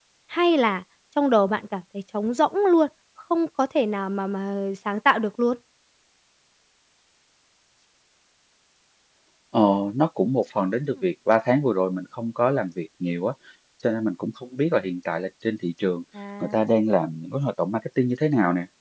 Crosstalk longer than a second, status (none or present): none